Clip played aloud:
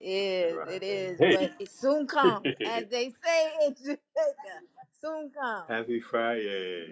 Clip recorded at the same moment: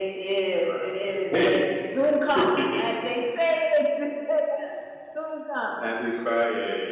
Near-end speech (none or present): none